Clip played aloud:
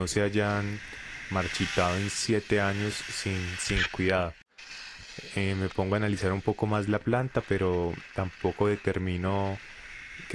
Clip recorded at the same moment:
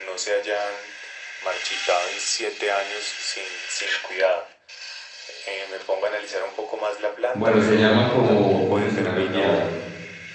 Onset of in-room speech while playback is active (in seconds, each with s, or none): 7.3 s